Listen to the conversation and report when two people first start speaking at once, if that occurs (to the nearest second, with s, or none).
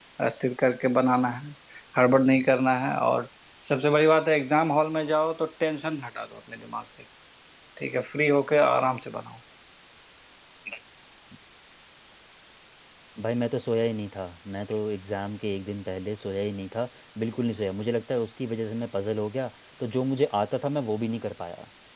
none